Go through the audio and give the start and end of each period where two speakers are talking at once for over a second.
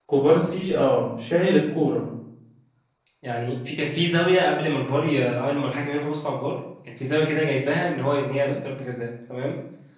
none

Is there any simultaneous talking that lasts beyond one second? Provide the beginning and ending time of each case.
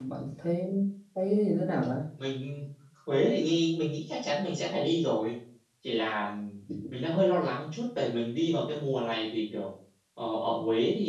none

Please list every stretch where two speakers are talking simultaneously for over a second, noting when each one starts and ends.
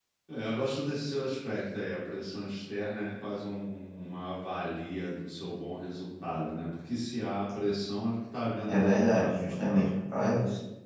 8.7-9.9

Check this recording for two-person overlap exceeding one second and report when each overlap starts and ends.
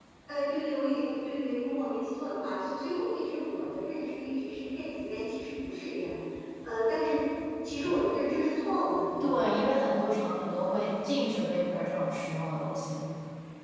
none

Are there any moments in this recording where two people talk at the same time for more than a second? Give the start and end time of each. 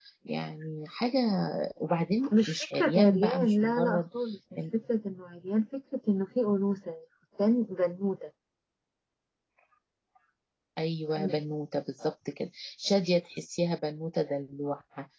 2.5-4.0

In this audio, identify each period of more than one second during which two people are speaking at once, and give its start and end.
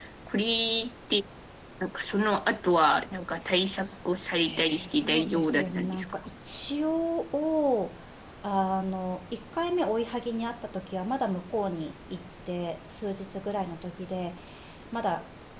4.4-6.0

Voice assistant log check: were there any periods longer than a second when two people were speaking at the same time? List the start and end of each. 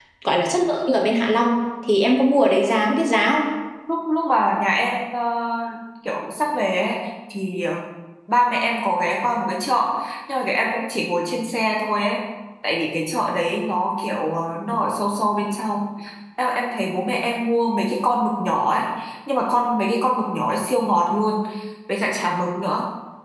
none

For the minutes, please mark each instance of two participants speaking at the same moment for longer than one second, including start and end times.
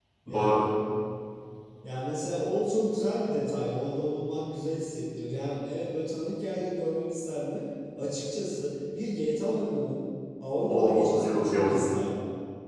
10.7-11.9

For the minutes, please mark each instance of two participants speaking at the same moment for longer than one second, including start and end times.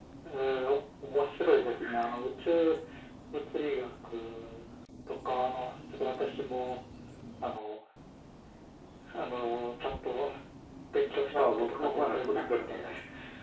11.3-12.8

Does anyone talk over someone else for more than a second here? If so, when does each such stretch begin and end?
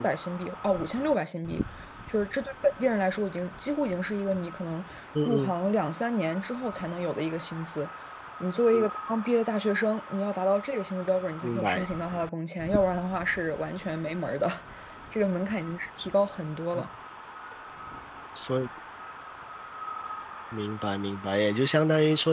none

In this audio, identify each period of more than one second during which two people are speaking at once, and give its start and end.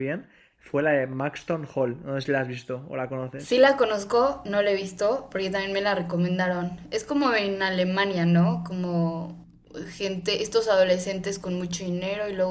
none

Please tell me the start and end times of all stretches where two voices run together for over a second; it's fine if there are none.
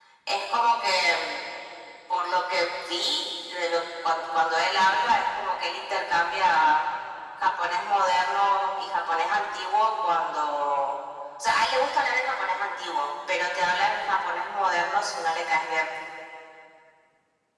none

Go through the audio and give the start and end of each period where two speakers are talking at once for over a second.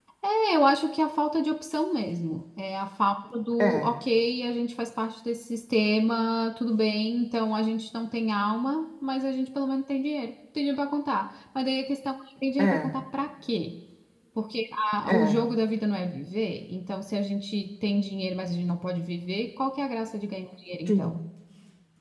none

